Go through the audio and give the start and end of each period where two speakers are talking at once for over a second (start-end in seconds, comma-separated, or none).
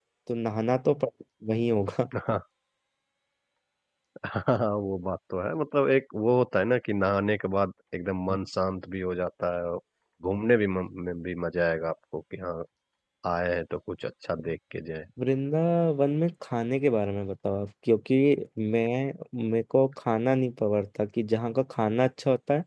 none